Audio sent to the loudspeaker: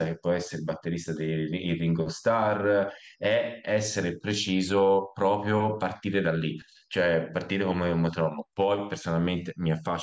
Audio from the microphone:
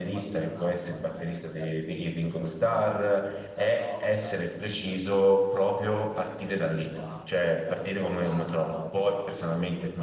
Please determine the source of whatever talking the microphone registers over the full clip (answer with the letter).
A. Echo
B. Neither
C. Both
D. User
C